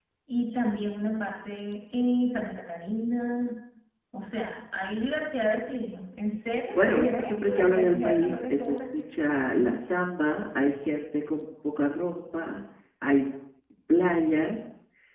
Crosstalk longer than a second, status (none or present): present